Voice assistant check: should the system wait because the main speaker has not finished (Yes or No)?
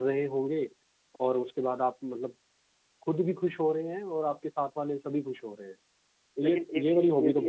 No